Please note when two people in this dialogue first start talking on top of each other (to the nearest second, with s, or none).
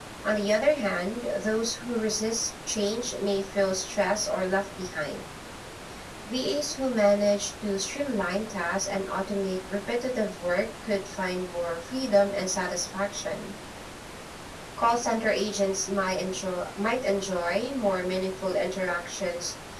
none